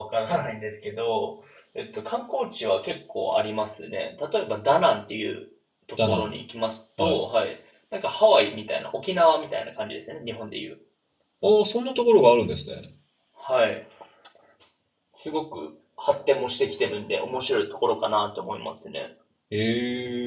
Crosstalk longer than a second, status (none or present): none